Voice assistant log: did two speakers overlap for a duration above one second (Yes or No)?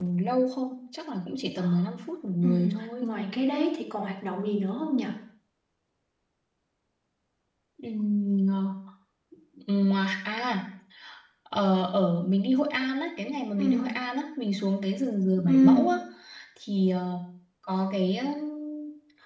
No